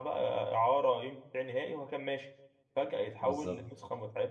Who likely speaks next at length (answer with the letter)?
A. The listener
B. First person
B